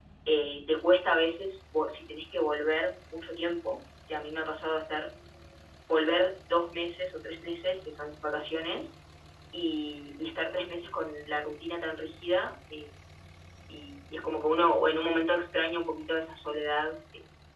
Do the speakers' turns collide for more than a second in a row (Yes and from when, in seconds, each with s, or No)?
No